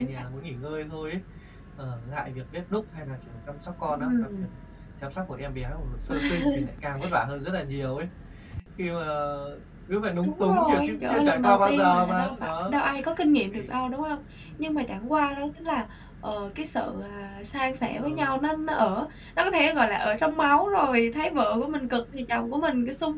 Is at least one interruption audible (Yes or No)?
Yes